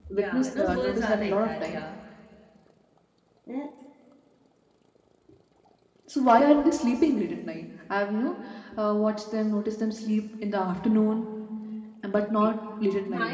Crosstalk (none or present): present